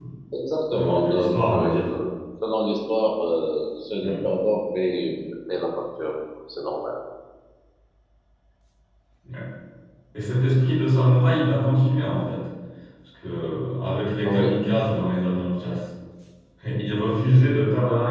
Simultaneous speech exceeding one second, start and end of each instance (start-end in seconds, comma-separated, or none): 0.7-1.9